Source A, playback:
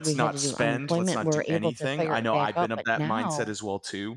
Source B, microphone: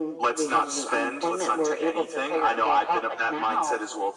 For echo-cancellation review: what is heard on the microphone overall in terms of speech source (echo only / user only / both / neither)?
echo only